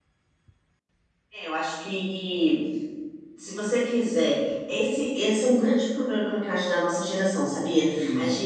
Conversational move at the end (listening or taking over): listening